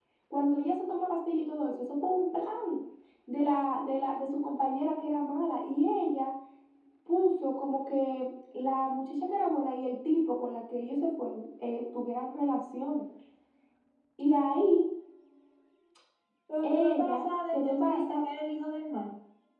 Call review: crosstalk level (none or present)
present